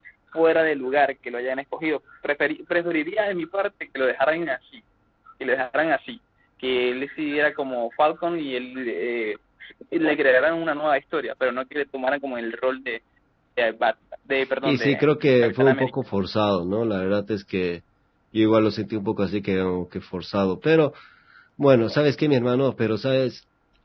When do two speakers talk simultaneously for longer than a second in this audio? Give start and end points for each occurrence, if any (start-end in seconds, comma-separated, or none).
14.6-15.9